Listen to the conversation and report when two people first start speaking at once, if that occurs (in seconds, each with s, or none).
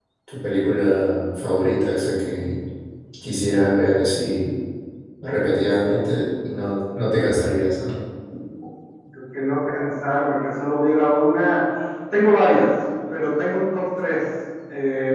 none